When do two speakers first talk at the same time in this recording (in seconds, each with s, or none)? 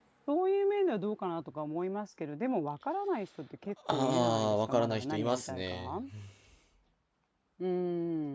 3.9 s